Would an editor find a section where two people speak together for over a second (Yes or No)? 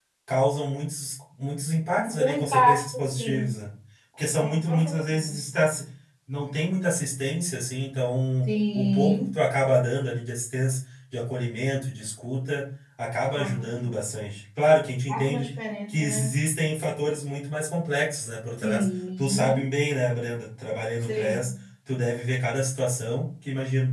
Yes